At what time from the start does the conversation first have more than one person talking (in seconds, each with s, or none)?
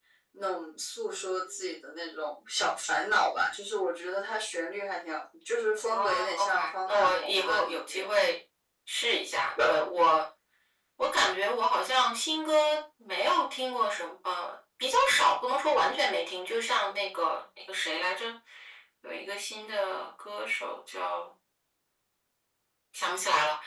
5.9 s